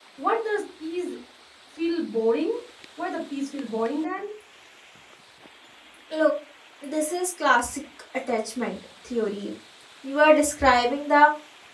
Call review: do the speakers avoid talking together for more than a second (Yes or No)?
Yes